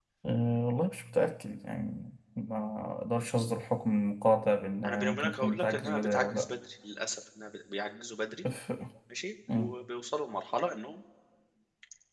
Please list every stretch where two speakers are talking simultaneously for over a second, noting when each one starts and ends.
4.8-6.4

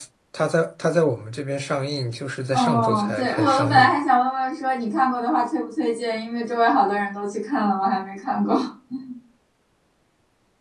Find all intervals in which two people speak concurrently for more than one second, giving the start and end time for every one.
2.5-3.9

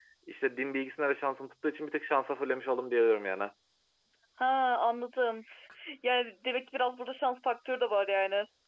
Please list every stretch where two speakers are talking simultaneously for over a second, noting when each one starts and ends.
none

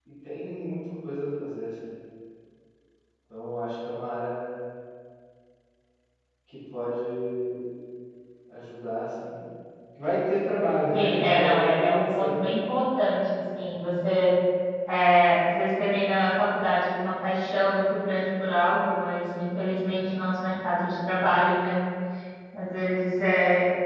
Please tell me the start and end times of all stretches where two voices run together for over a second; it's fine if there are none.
10.9-12.5

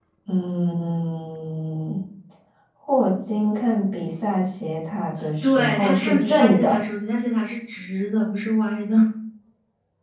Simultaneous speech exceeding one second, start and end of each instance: 5.4-6.8

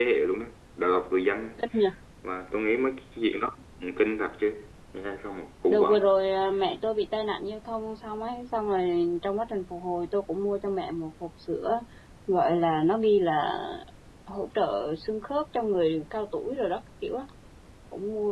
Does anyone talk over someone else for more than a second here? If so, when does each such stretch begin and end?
none

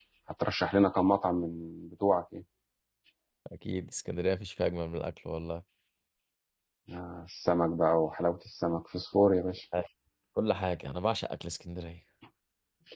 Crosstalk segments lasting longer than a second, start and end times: none

